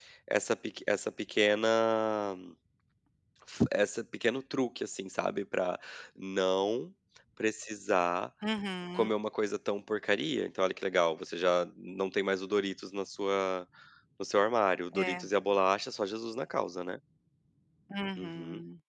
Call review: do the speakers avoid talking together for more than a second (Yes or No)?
Yes